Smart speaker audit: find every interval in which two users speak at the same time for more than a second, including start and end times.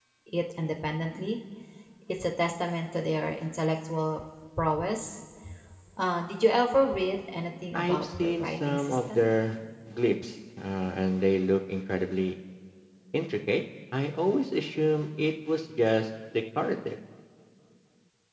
7.7-9.3

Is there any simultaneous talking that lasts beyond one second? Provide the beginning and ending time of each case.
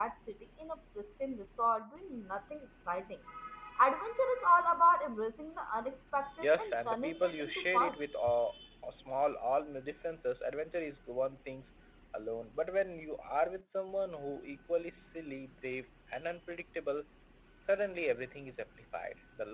6.4-8.0

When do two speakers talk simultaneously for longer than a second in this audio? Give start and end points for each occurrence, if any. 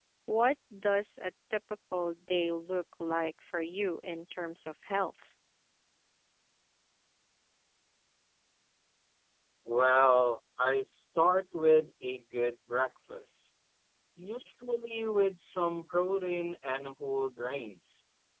none

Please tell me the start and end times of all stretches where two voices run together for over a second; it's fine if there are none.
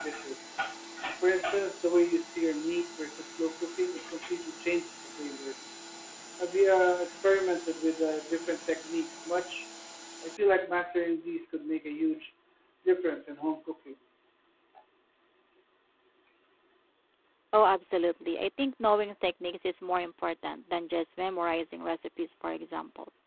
none

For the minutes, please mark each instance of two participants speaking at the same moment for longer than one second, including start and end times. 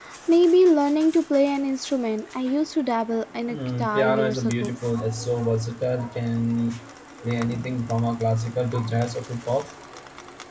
3.5-4.8

